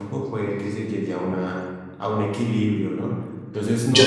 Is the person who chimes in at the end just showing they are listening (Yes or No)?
Yes